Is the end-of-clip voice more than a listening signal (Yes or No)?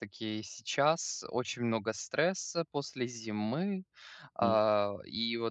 No